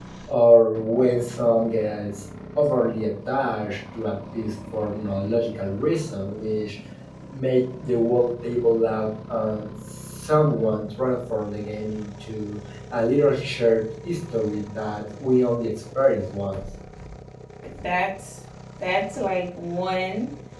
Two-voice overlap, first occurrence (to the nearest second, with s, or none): none